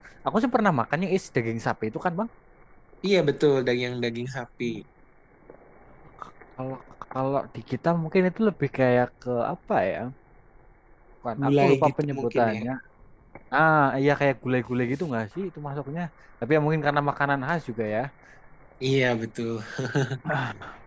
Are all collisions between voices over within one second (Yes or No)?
No